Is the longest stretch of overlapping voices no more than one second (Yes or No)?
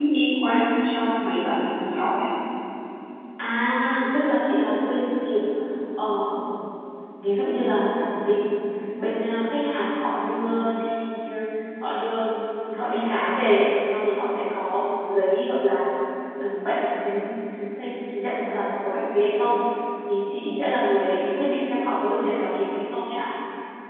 Yes